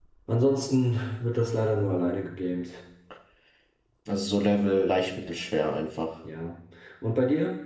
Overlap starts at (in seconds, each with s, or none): none